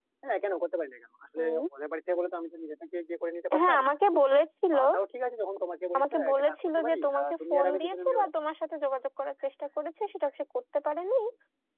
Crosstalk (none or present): present